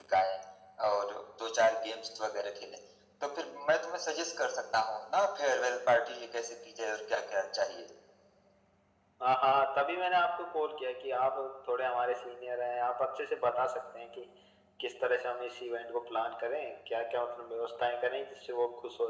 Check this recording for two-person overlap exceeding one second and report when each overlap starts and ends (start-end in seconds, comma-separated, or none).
none